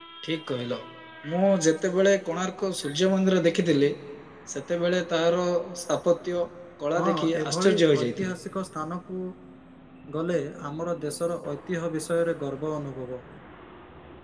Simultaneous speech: Yes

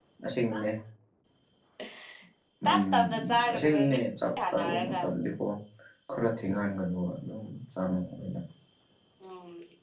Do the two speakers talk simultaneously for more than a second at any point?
Yes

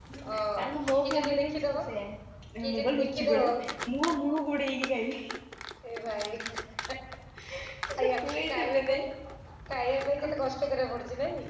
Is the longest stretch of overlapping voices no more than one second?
No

